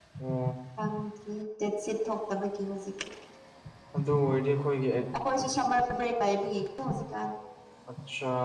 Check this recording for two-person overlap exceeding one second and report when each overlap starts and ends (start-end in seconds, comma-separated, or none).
none